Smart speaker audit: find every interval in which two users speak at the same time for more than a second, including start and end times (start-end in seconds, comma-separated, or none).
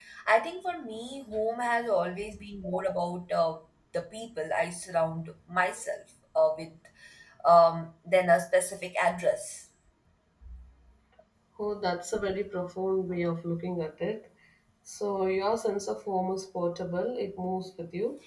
none